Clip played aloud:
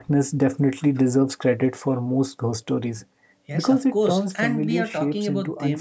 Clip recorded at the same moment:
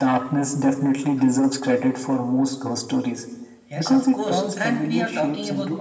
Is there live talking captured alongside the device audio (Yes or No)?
No